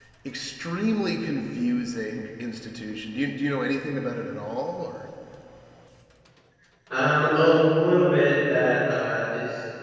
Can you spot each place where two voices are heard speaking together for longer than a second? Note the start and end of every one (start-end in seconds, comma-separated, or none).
none